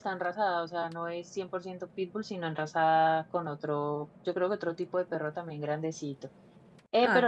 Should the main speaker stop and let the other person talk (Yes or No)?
No